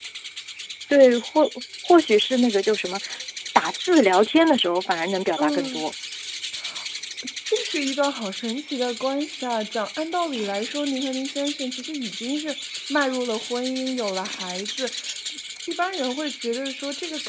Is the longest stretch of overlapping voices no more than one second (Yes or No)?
Yes